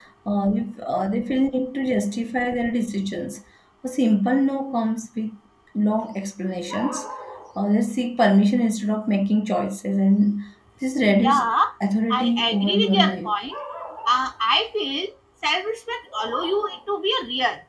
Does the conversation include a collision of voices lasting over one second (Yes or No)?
Yes